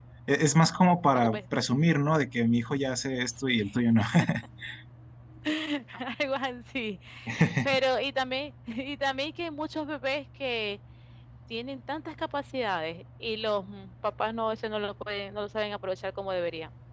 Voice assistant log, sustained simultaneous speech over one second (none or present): none